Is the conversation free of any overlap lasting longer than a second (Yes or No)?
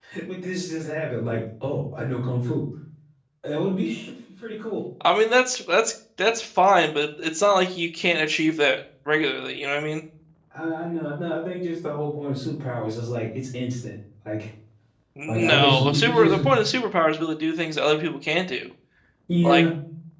No